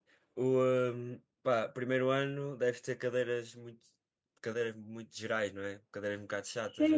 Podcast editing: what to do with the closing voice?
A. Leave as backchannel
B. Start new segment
B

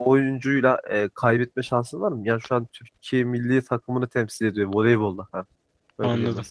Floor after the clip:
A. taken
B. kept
A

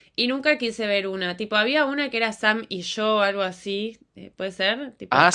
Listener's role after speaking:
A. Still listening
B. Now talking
B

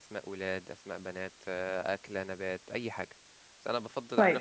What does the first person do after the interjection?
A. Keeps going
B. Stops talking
A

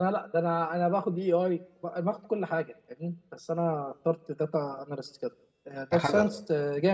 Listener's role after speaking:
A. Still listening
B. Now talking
A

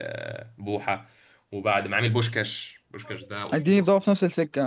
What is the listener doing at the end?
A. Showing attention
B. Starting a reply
B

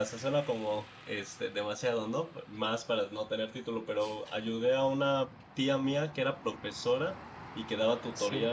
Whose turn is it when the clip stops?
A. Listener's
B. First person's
B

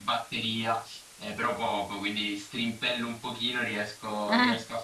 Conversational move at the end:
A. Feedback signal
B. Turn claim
A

